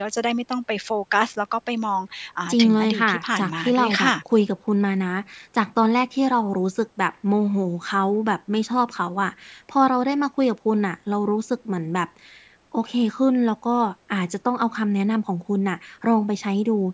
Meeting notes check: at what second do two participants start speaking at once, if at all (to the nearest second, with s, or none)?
3 s